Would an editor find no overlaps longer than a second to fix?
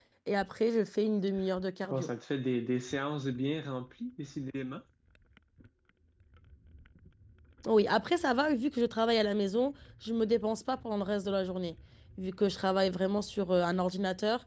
Yes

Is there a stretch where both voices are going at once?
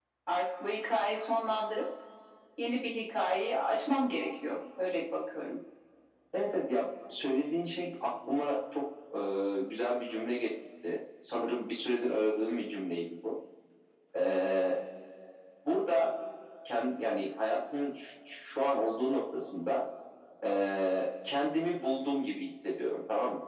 No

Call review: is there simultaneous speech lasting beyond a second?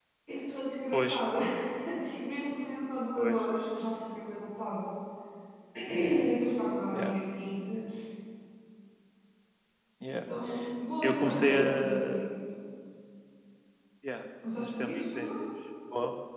Yes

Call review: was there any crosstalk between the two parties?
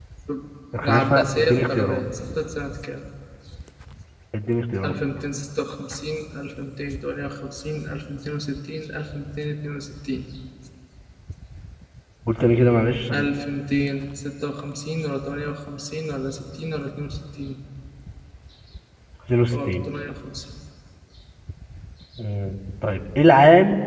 Yes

